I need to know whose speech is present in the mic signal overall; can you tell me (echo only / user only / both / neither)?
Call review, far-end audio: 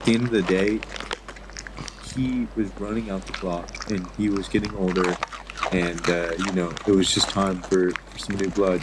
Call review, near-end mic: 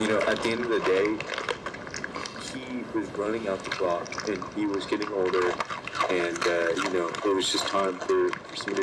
echo only